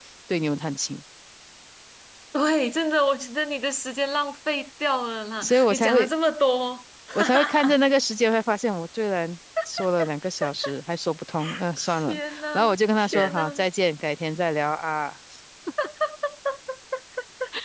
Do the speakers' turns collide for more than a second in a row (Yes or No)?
Yes